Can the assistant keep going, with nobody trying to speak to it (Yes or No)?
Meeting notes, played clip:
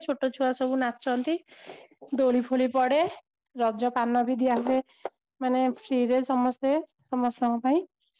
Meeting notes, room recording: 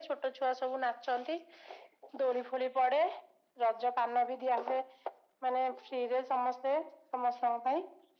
Yes